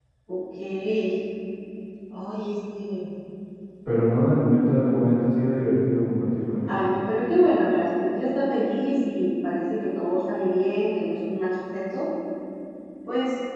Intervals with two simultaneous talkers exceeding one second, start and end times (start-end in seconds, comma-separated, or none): none